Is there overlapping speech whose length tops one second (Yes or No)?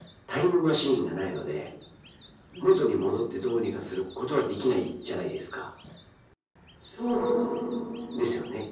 No